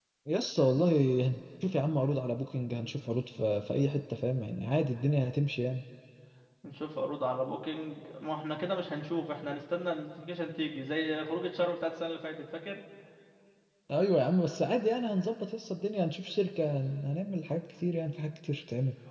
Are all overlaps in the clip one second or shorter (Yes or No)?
Yes